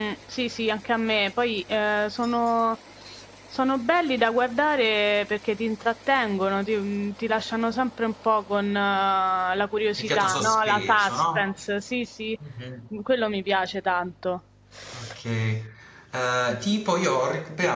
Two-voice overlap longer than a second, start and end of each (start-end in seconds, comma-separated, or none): 10.0-11.5